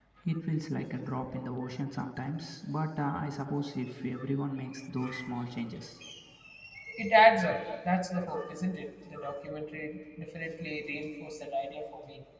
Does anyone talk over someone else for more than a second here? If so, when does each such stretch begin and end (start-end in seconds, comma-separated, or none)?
none